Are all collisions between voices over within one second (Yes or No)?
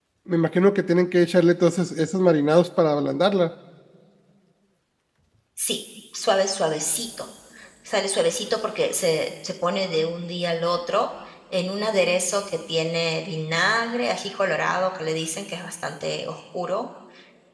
Yes